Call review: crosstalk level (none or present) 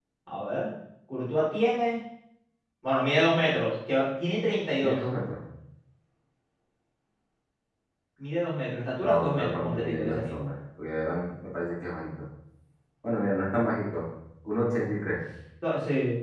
present